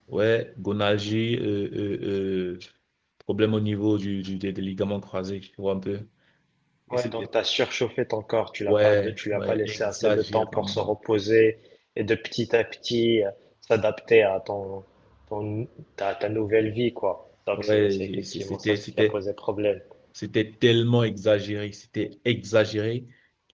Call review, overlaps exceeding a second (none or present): present